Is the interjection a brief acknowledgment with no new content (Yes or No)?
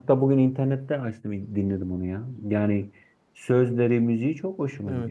No